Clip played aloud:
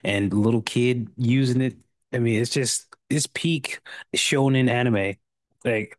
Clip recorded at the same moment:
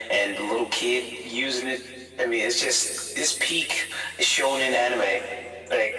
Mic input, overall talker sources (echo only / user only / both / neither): echo only